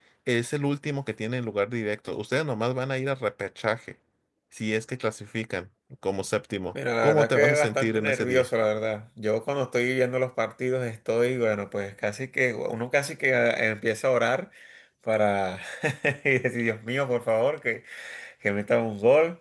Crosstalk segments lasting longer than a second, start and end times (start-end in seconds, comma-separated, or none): 7.0-8.5